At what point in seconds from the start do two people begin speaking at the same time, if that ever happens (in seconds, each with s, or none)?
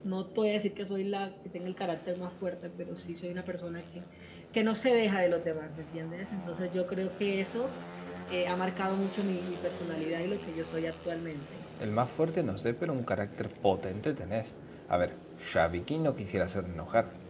none